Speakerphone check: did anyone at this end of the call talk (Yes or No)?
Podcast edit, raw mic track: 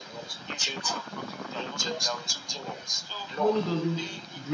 Yes